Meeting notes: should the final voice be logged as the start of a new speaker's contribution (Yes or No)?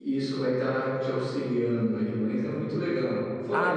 No